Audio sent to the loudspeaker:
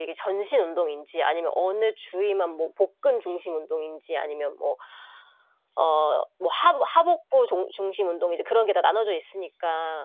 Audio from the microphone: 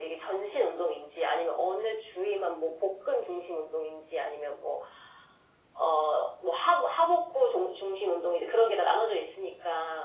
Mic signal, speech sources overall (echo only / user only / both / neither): echo only